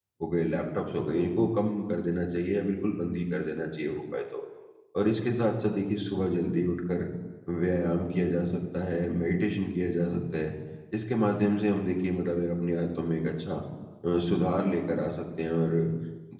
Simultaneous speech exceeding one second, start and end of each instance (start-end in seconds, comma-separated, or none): none